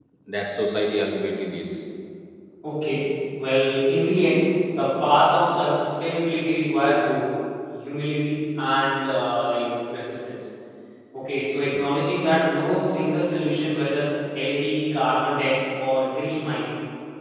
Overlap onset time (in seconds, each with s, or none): none